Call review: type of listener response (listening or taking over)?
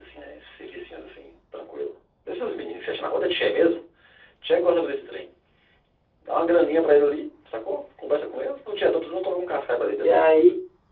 taking over